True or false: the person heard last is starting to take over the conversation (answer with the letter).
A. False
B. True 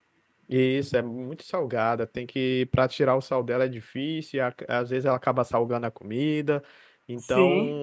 A